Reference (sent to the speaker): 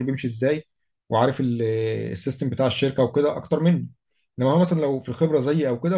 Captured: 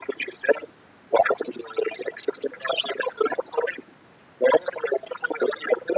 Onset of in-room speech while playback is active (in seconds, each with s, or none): none